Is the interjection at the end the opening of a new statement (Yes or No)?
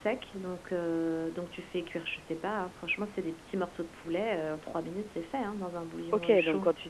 Yes